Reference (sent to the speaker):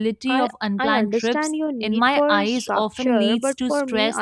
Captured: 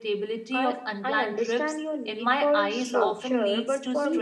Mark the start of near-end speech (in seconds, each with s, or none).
2.7 s